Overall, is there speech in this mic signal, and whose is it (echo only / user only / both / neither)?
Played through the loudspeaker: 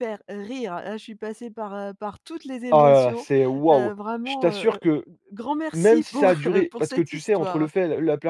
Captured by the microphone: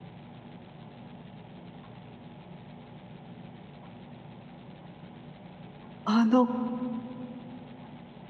user only